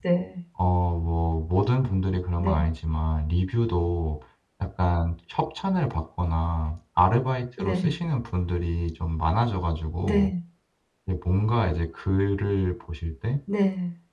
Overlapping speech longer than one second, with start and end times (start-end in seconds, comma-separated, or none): none